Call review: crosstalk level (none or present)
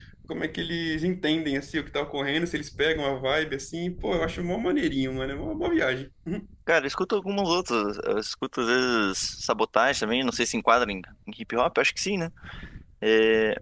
none